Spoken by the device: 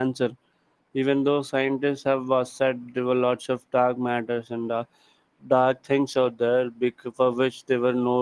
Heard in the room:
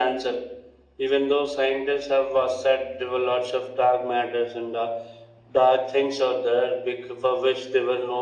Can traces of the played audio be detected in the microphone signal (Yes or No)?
Yes